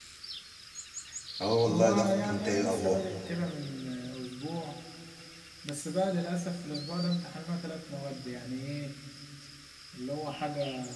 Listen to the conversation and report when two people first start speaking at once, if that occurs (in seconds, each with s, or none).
1.7 s